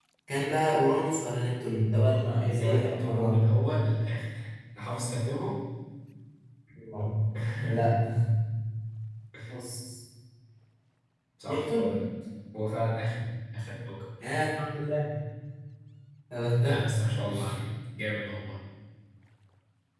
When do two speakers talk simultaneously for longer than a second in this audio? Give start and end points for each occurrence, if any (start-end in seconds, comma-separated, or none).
1.9-3.4